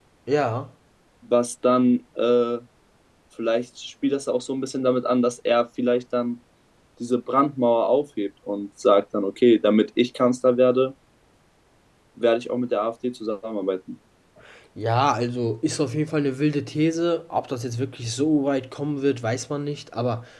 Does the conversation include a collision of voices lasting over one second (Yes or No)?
No